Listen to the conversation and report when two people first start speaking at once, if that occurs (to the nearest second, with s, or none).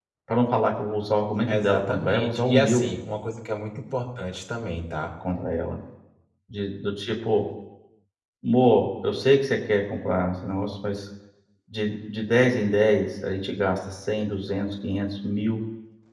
1 s